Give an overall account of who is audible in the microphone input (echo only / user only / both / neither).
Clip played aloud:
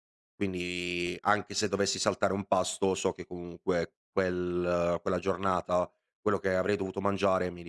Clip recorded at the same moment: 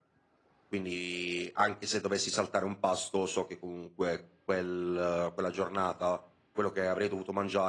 echo only